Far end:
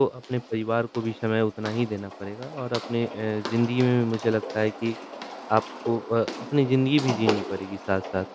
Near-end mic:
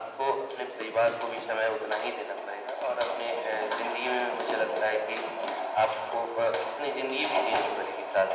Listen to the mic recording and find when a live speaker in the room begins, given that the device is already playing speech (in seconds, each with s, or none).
none